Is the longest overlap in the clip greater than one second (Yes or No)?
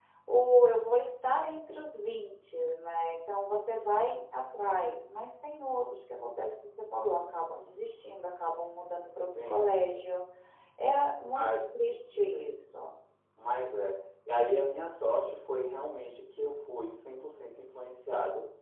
No